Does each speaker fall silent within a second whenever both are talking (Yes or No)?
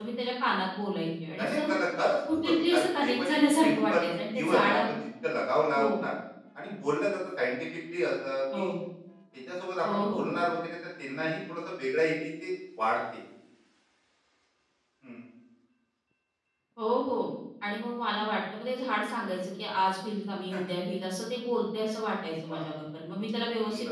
No